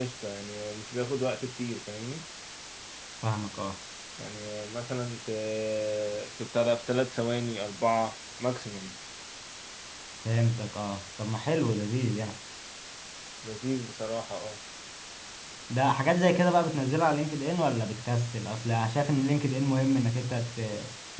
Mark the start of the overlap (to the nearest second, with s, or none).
none